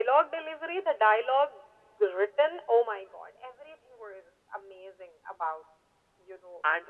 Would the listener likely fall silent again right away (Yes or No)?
No